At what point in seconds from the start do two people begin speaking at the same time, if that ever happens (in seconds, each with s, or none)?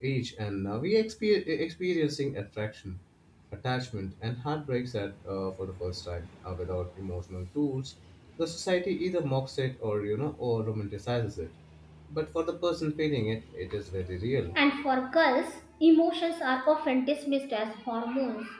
none